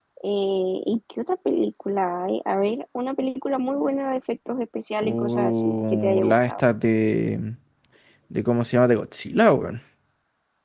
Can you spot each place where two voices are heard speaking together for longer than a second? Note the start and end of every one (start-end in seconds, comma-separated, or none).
5.0-6.6